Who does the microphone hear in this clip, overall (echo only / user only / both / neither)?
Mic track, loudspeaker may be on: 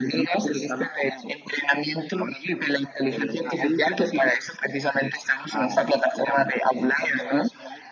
echo only